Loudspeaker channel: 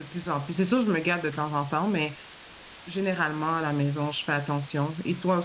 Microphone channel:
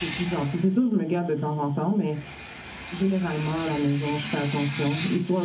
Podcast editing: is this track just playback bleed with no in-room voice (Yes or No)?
Yes